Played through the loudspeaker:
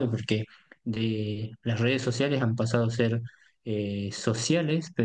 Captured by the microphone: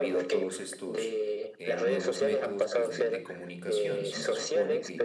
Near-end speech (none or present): present